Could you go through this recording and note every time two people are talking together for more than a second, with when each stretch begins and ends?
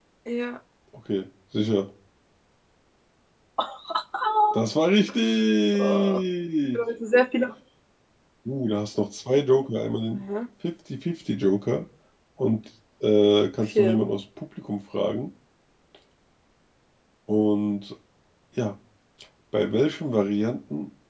none

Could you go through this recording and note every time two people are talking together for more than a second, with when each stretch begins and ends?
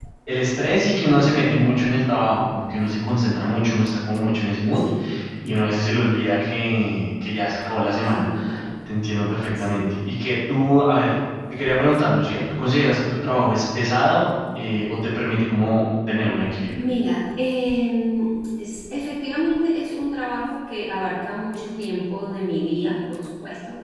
none

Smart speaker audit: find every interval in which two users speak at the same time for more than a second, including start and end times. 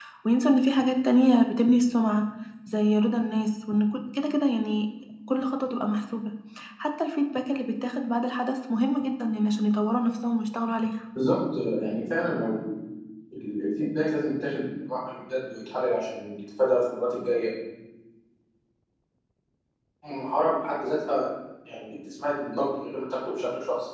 none

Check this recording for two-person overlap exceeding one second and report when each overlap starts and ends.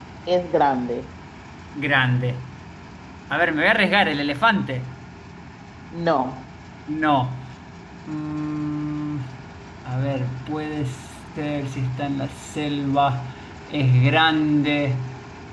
none

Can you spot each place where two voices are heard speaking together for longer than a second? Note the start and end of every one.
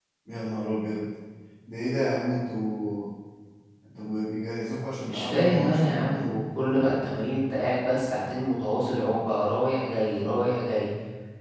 5.0-6.3

